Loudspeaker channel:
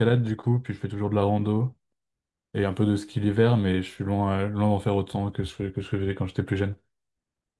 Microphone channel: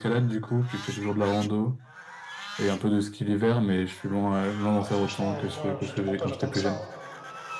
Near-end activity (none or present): present